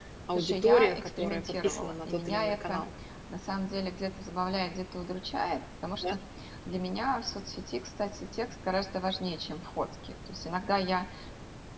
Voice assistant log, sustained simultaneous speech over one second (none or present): present